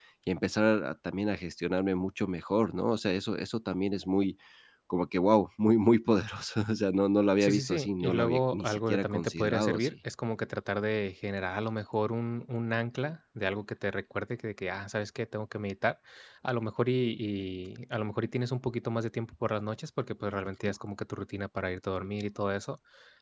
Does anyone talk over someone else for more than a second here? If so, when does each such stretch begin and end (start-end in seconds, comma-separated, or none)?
7.4-9.9